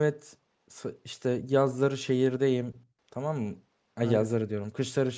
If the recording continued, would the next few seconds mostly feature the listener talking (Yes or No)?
No